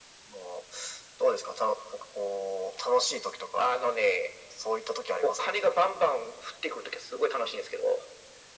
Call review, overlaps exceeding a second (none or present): none